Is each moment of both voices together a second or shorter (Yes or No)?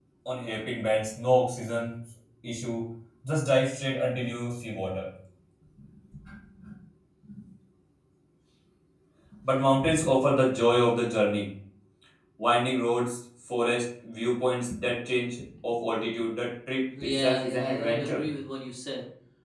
No